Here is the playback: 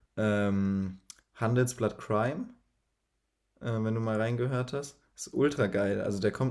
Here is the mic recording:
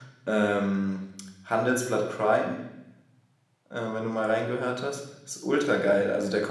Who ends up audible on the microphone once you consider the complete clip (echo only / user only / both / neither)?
echo only